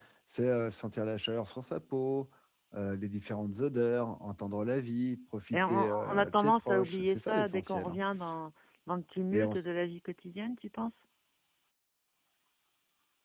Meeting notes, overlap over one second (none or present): present